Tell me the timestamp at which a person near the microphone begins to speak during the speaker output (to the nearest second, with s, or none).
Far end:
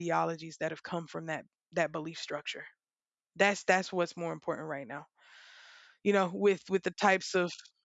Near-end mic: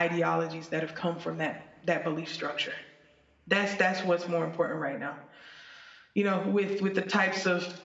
none